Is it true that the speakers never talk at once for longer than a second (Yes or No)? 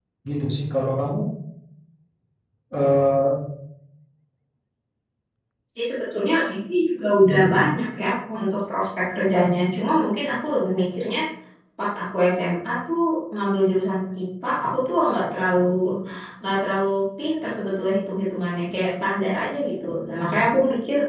Yes